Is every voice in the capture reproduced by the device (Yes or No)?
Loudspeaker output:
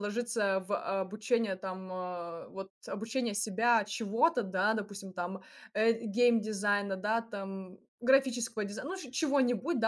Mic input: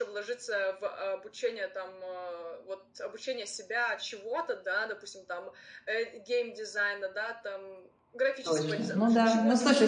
No